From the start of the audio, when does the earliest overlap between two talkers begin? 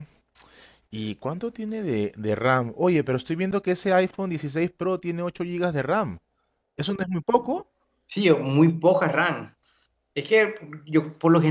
none

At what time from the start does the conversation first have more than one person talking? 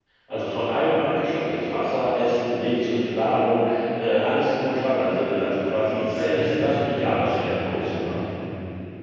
6.1 s

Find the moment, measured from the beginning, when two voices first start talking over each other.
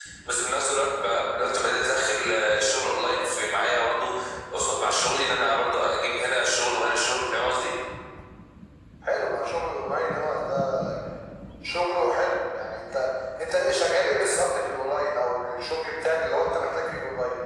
none

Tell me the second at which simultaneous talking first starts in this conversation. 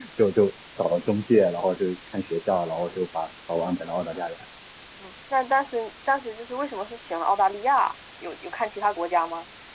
none

